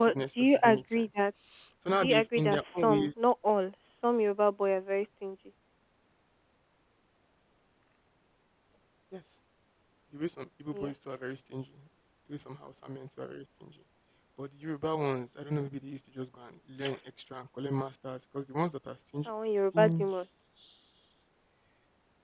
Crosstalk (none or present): present